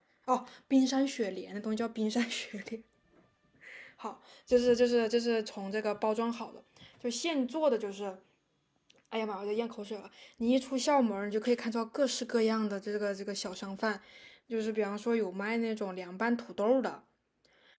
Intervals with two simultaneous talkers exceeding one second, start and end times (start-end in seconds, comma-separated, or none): none